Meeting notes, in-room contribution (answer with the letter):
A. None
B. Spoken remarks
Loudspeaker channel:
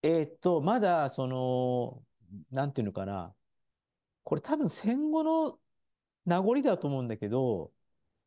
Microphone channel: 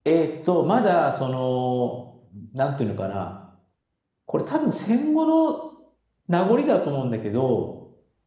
A